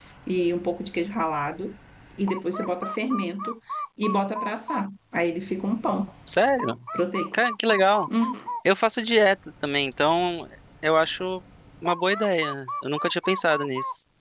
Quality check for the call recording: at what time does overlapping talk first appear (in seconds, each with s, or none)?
none